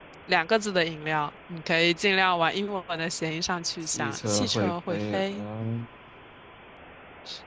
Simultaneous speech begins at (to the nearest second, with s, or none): 4 s